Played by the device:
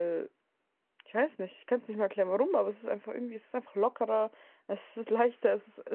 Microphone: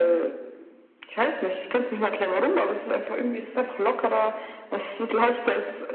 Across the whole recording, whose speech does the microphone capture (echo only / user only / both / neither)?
echo only